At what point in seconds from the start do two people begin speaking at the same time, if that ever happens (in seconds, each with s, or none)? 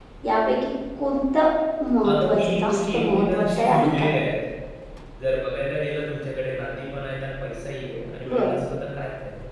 2.1 s